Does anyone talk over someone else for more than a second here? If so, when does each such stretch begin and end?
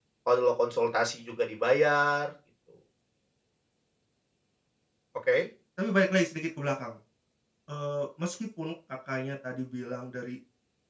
none

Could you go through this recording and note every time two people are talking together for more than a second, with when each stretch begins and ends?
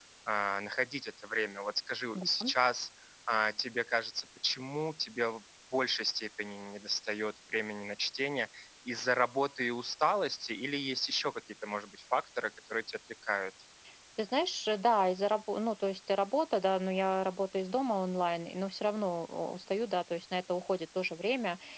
none

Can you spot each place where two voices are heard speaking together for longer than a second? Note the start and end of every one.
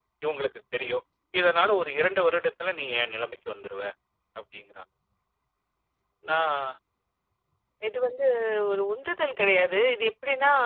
none

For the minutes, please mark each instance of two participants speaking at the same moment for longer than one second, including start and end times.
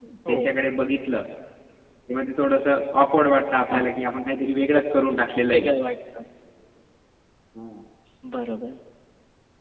none

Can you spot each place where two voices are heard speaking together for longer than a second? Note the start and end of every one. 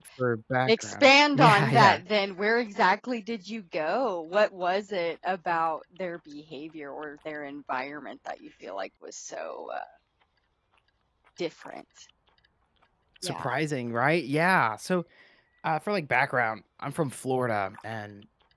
0.7-2.0

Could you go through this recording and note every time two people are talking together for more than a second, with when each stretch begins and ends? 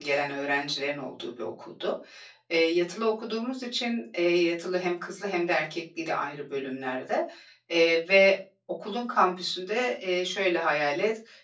none

